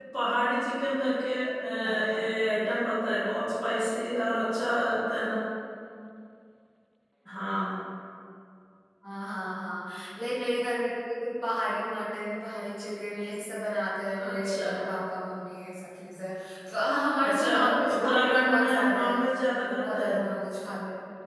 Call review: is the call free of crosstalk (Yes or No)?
No